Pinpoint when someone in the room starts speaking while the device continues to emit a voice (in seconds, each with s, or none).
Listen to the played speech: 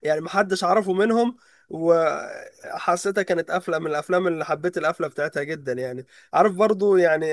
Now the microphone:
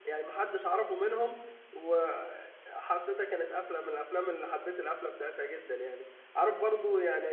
none